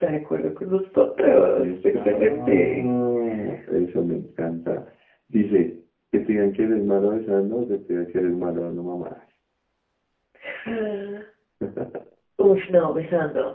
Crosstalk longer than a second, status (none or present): present